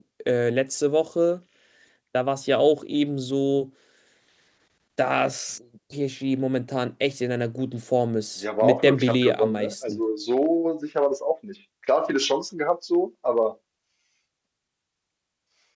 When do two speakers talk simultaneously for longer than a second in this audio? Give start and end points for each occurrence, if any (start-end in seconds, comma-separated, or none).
8.4-10.0